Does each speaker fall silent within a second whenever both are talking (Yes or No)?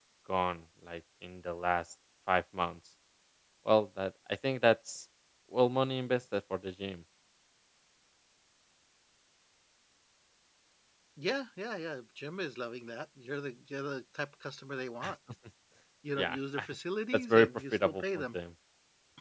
No